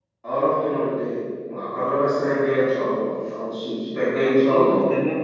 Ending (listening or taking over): taking over